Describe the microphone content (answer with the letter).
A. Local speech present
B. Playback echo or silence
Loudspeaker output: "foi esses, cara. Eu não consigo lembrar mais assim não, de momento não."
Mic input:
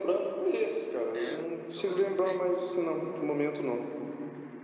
A